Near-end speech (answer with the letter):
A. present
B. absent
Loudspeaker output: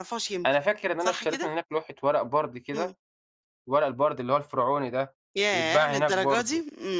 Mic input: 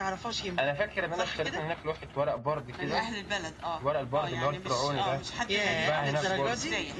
A